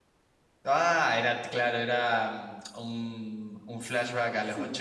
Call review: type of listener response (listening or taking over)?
taking over